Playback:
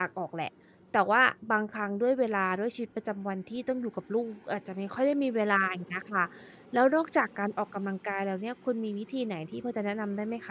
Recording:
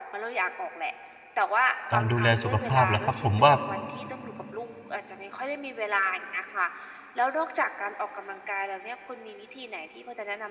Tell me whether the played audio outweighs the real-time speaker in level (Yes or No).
No